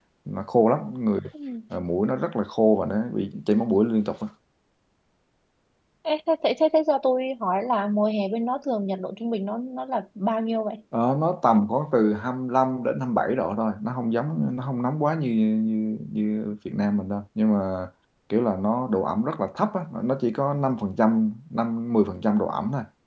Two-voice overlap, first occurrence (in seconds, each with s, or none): none